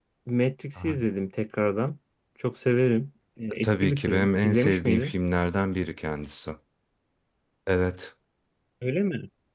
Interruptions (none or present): present